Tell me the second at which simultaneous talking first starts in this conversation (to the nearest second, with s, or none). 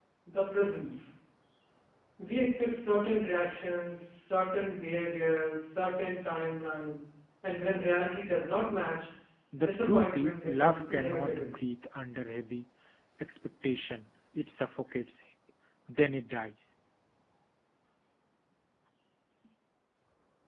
10 s